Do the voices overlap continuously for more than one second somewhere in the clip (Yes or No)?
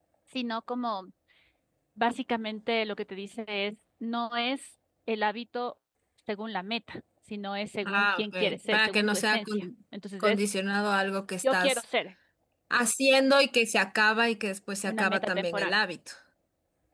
Yes